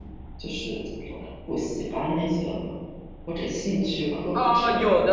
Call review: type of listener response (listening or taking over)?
taking over